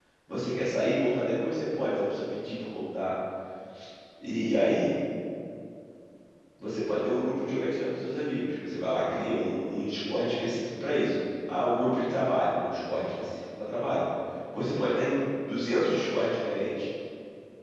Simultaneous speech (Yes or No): No